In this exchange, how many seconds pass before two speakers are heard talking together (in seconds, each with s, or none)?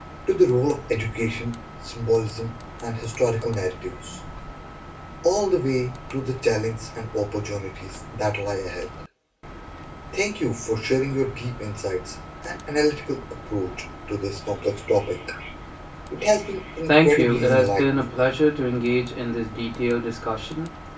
16.9 s